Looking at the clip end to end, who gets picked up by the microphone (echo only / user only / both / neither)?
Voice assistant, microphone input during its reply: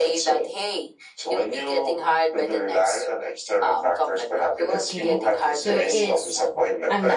both